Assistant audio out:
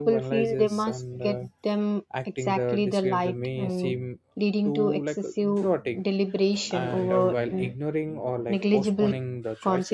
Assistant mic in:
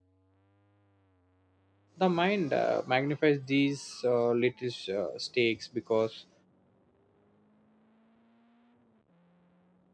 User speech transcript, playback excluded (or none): the mind uh, magnifies these uh, little uh, stakes because